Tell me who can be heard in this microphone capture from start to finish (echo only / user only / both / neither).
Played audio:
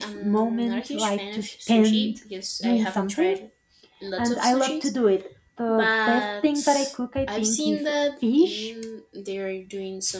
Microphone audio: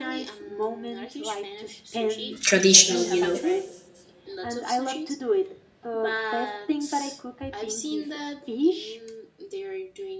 both